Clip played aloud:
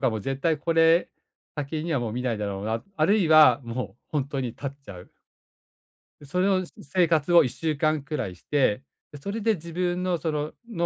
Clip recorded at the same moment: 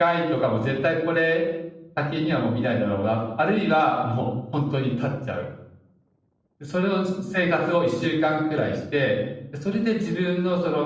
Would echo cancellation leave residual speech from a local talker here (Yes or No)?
No